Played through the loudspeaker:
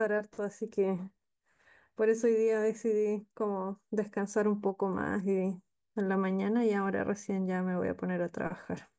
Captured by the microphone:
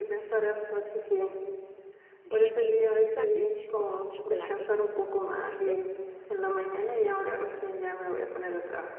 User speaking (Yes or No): Yes